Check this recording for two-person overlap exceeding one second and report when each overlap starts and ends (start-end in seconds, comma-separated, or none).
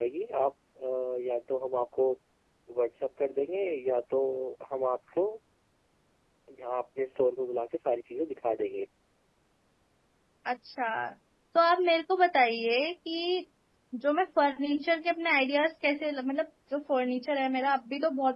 none